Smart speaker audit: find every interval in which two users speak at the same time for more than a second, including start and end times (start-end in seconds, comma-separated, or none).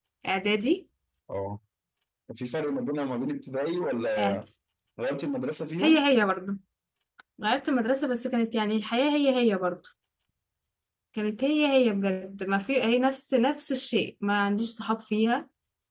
none